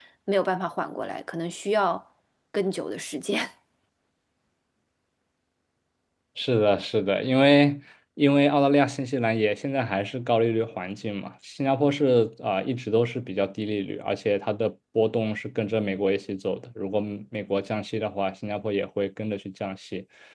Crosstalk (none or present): none